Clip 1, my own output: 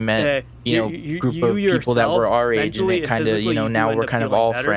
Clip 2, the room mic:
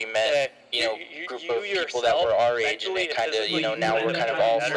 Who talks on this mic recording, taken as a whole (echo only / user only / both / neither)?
both